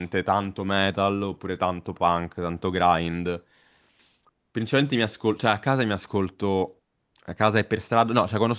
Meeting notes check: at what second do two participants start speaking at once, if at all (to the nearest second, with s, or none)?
none